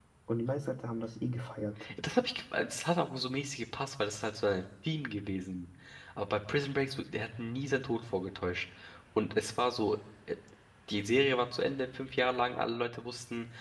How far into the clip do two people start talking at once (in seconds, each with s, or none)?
none